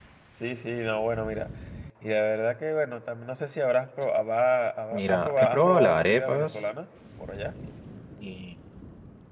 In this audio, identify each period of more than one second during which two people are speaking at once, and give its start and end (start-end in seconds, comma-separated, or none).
4.9-6.6